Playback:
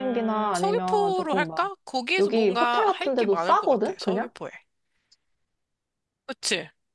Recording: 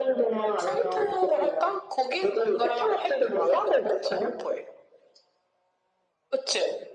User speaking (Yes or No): No